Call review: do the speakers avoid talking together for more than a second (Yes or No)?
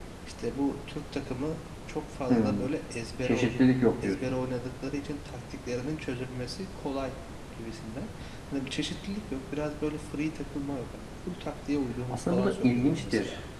No